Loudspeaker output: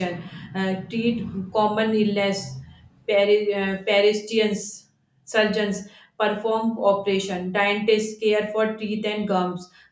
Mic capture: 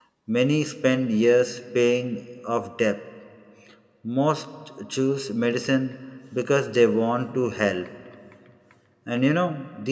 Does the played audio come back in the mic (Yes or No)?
No